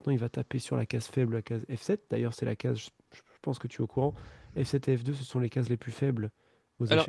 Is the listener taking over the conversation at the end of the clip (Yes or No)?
Yes